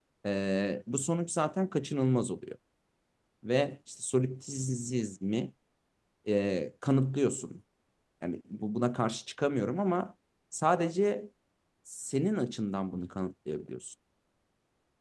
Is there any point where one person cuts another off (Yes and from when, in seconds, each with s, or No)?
No